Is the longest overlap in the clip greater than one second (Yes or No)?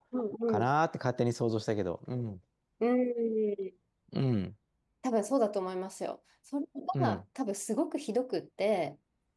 No